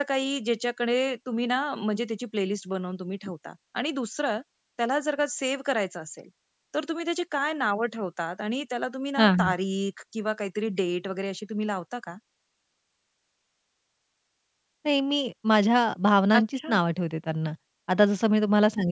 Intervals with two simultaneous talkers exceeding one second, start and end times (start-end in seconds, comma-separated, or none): none